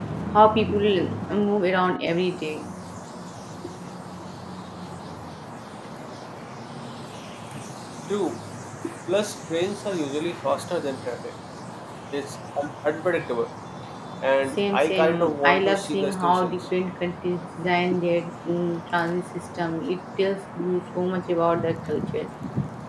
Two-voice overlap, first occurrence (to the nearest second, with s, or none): 14 s